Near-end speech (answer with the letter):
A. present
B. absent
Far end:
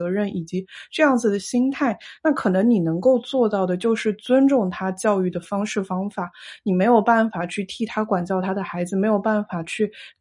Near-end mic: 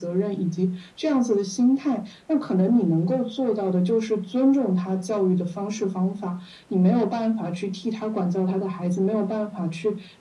B